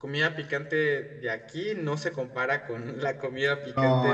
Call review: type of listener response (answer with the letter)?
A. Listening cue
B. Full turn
B